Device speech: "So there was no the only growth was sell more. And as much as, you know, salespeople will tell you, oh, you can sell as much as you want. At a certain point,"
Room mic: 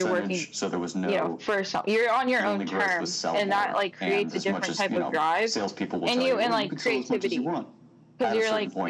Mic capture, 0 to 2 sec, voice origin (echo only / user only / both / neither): both